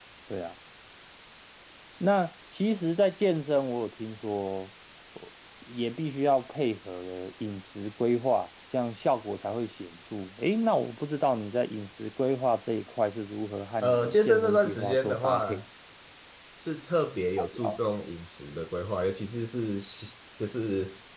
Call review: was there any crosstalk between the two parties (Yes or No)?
Yes